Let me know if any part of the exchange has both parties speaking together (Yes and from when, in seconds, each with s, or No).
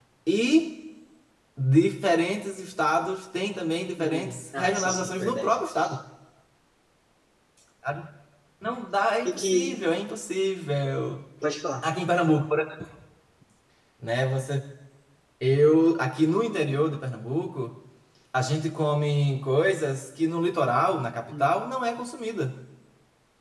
Yes, from 4.0 s